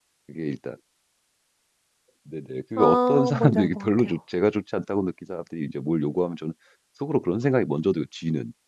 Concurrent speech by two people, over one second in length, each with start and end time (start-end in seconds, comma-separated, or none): 2.8-4.1